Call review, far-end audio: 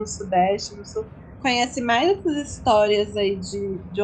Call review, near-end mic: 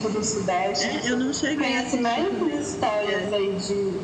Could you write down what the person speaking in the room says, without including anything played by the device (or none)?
É, eu não cheguei a assistir também, não. É,